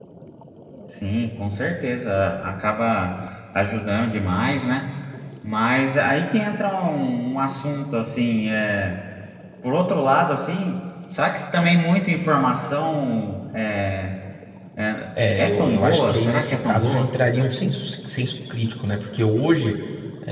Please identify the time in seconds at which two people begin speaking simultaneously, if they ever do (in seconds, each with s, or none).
15.2 s